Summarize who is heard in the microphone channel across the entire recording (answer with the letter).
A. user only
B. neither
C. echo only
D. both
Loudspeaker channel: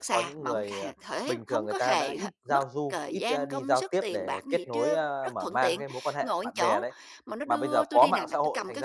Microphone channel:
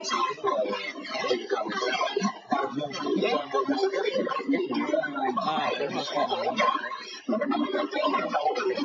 D